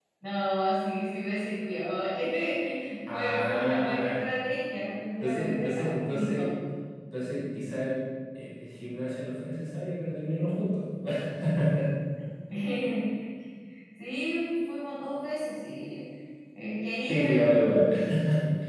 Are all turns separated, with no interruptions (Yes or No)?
No